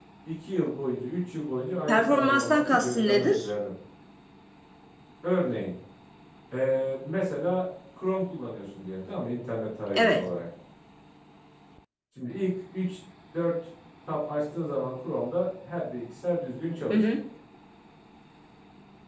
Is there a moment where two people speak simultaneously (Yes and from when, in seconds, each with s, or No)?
Yes, from 1.9 s